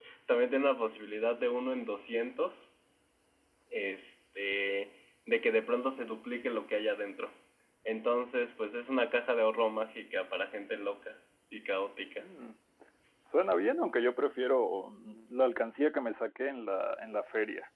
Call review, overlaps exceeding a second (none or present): none